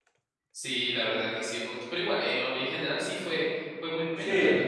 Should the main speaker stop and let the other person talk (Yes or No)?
Yes